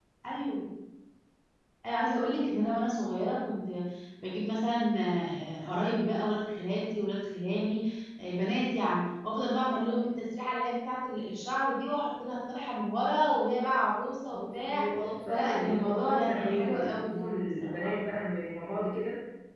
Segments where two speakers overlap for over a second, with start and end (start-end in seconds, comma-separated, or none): 15.3-17.9